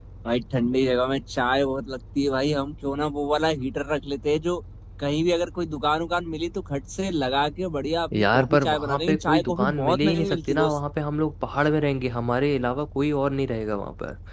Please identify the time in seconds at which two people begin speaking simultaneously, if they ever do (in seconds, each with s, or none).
8.1 s